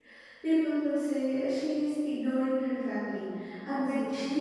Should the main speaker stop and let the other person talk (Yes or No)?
No